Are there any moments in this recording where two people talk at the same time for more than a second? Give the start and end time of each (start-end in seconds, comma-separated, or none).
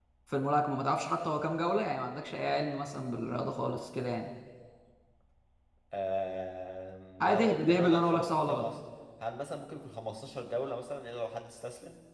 7.2-8.7